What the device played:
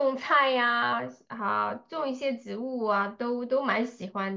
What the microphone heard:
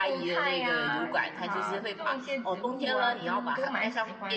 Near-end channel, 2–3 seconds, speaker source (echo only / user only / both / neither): both